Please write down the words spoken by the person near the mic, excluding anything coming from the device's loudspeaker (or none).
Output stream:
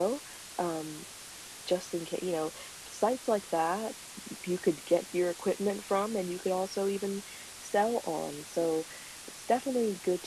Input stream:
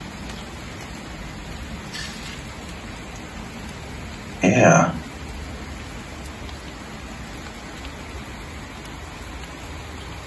Yeah.